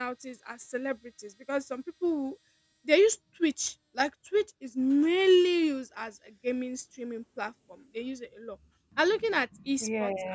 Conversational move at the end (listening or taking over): listening